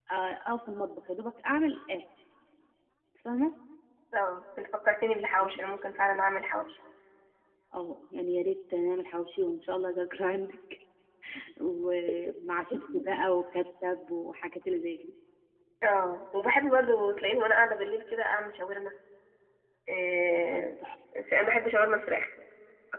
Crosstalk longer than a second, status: none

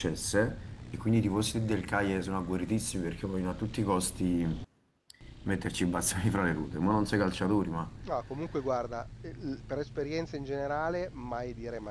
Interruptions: none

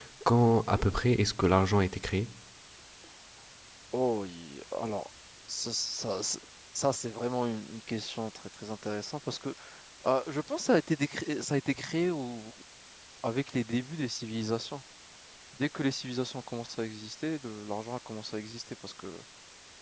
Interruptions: none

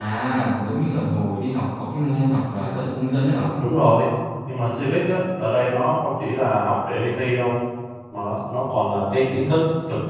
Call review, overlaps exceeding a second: none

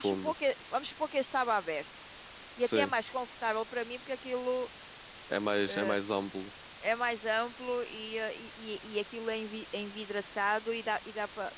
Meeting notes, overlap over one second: none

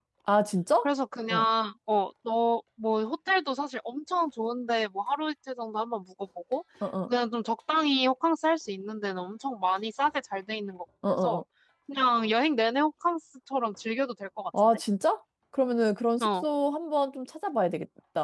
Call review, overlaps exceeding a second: none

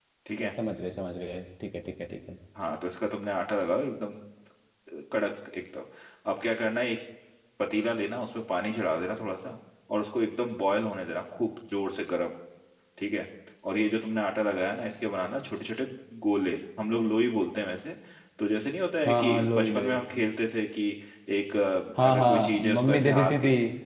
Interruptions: present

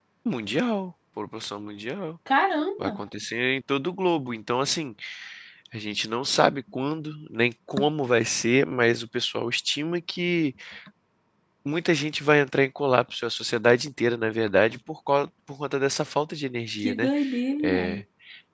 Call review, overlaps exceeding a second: none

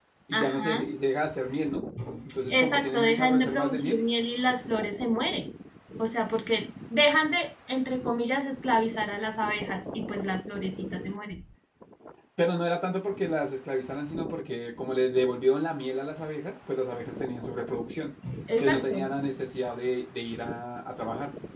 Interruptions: present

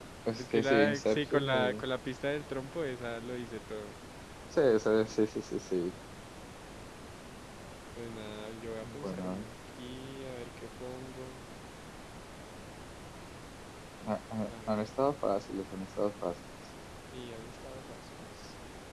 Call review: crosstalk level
present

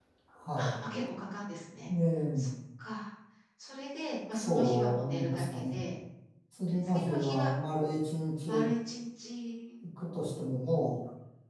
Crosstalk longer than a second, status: present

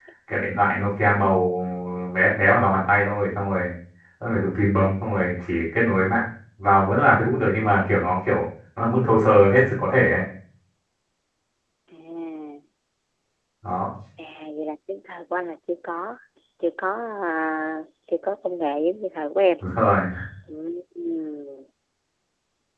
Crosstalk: none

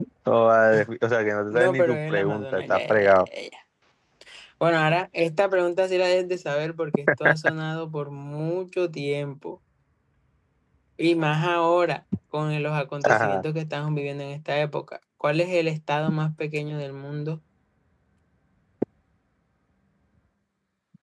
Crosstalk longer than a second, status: present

